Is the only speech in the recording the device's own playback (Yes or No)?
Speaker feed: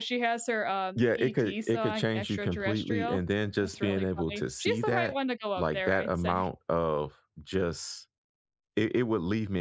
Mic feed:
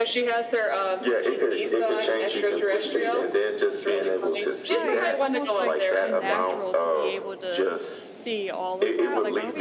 No